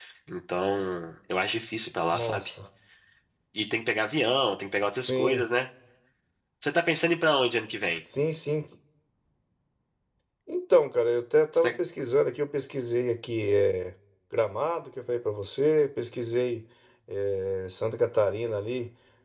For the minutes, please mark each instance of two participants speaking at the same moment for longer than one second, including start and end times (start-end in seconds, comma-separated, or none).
none